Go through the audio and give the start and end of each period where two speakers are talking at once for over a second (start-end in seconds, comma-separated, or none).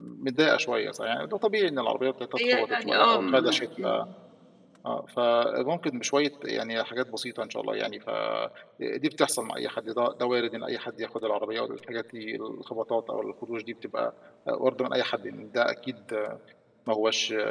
2.4-4.0